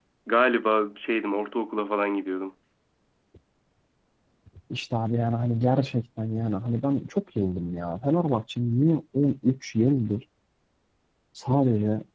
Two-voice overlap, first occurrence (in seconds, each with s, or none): none